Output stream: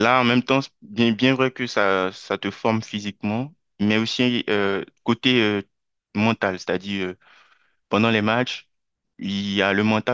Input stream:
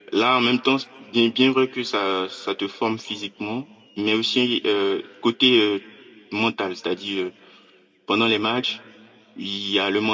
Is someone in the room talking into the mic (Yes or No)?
No